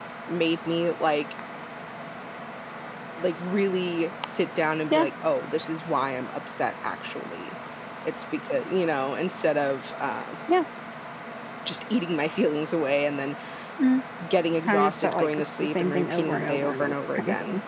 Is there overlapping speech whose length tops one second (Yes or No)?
Yes